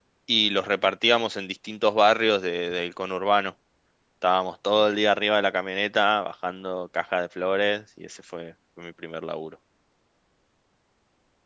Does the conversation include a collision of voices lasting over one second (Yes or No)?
No